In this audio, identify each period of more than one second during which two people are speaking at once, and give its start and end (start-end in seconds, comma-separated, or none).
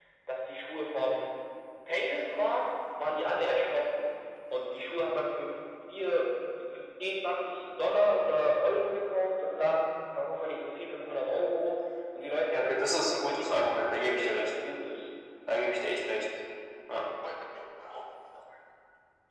12.5-14.5